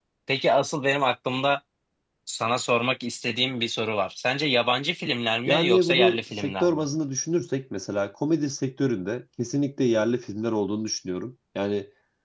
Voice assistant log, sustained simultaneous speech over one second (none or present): present